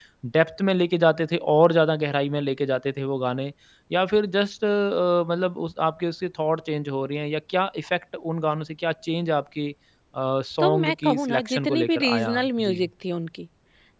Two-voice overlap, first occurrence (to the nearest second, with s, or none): 11 s